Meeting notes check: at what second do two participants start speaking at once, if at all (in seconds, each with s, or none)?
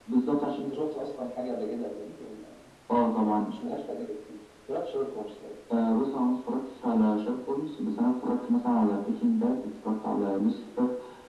none